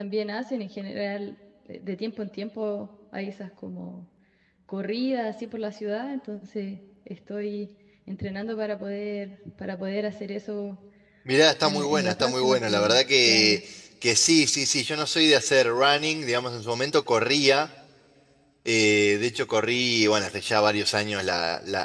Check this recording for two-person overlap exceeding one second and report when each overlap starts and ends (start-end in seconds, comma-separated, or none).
11.6-13.6